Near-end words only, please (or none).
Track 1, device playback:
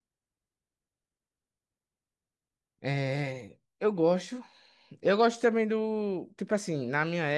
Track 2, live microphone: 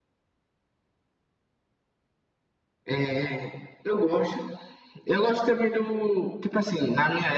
none